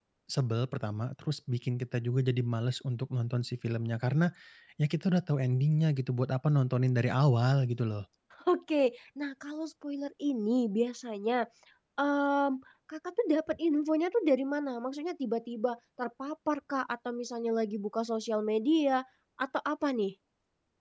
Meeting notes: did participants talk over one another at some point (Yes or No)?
No